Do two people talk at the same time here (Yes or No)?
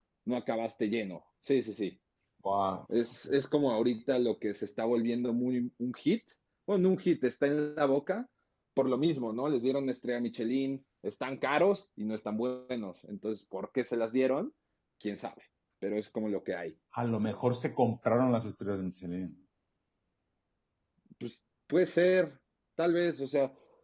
No